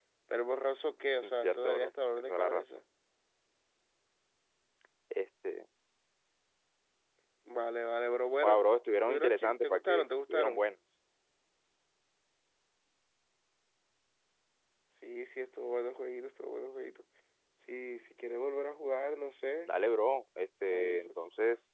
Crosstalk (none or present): present